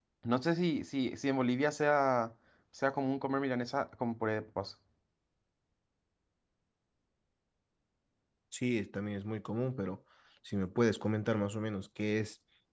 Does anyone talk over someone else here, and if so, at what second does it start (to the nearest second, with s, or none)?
none